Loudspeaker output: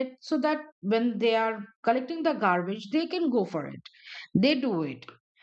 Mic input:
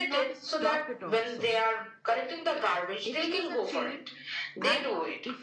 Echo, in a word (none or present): present